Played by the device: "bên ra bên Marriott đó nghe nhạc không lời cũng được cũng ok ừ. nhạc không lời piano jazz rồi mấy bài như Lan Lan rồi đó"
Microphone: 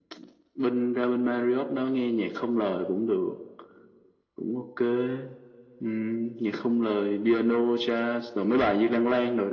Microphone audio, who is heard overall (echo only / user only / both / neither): echo only